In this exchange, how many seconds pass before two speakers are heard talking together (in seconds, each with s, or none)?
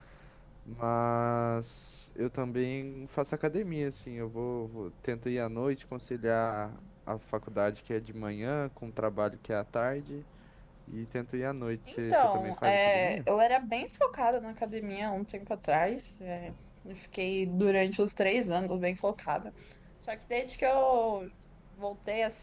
11.9 s